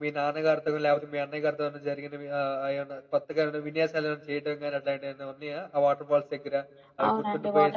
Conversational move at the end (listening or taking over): taking over